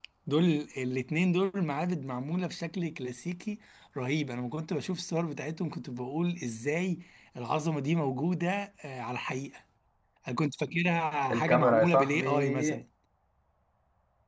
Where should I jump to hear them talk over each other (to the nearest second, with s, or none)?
11 s